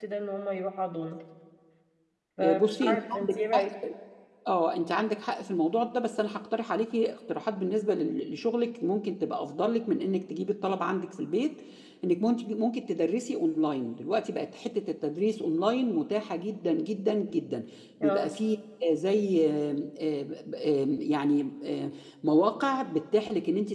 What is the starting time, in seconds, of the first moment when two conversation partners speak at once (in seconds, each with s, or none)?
2.4 s